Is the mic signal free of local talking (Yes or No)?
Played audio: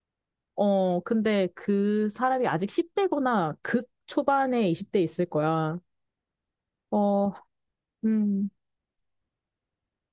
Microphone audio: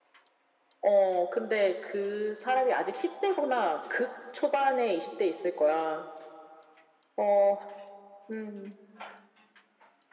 Yes